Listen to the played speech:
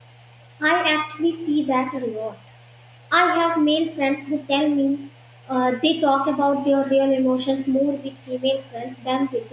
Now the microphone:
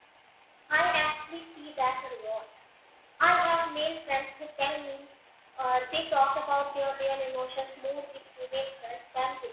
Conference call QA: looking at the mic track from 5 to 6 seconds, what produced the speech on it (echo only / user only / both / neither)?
echo only